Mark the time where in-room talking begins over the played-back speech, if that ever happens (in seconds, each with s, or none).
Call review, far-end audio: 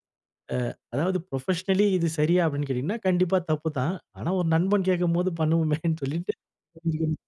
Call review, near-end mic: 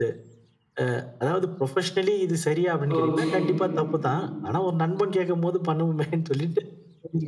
2.9 s